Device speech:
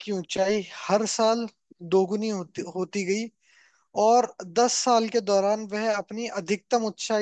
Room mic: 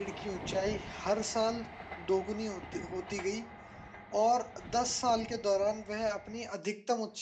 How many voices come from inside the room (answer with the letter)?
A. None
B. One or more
A